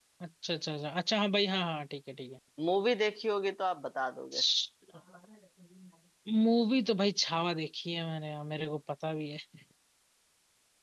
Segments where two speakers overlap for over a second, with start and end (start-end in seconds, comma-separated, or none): none